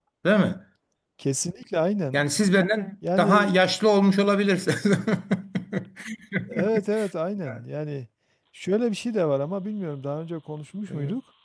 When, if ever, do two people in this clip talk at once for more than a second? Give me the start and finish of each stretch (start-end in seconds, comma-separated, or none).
none